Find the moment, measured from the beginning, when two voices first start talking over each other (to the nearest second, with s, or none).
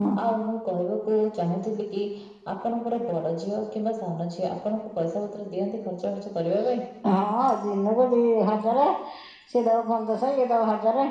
none